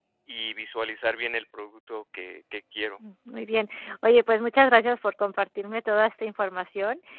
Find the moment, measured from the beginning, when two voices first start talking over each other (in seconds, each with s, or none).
none